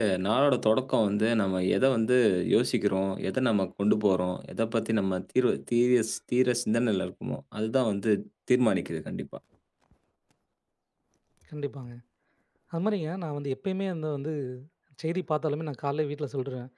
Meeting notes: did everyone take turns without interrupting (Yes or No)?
Yes